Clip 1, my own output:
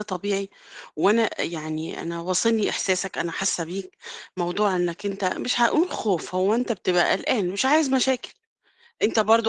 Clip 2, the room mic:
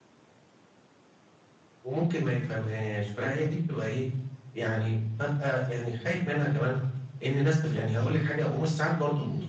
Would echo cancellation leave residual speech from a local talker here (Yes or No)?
Yes